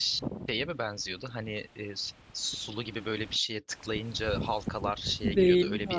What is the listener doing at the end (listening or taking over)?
taking over